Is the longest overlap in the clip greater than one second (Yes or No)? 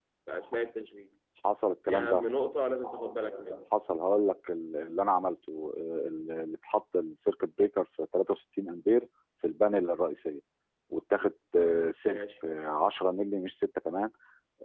No